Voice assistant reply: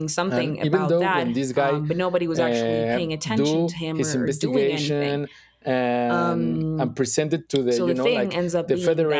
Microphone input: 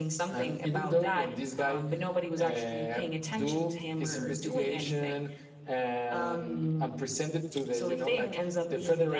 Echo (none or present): present